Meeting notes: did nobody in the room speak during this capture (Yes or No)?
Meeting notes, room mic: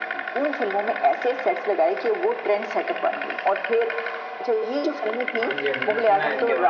No